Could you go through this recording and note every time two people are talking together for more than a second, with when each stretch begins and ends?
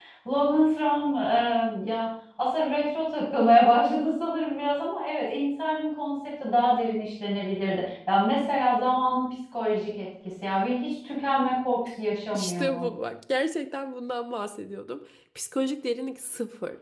none

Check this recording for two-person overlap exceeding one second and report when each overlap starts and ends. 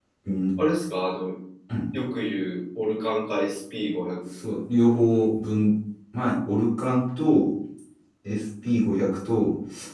none

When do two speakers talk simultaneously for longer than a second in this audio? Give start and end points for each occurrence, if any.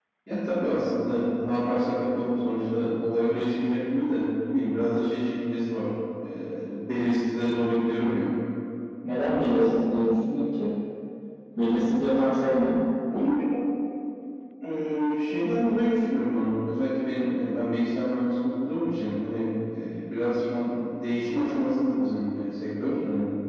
none

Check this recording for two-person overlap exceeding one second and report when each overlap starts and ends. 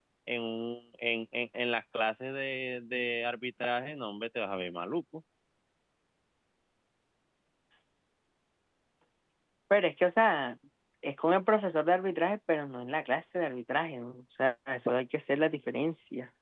none

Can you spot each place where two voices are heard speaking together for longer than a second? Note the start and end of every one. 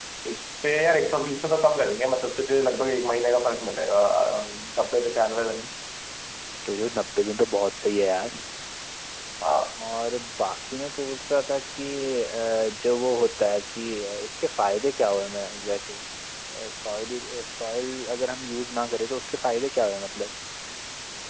none

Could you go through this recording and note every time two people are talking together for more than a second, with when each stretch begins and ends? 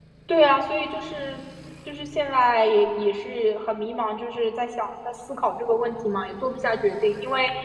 none

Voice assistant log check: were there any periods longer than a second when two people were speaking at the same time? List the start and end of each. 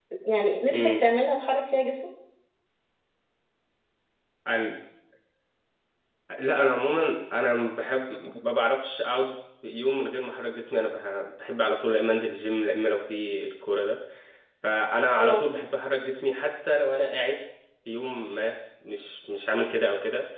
none

